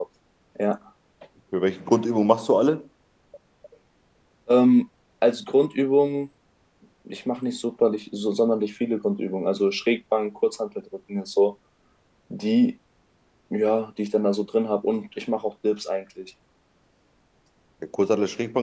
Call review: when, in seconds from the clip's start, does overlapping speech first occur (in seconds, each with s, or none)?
none